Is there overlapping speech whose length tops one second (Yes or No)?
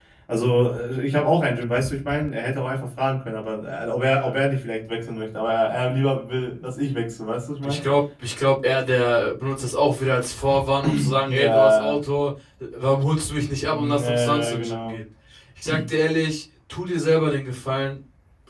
Yes